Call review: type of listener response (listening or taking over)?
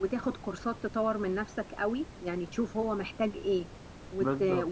listening